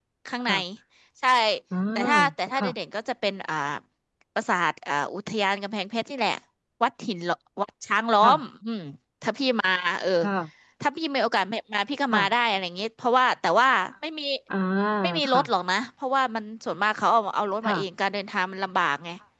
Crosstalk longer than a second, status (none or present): none